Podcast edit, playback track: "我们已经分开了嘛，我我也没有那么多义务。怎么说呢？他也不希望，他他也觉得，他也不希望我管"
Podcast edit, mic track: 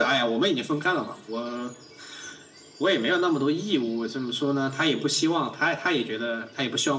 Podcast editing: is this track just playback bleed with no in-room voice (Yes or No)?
Yes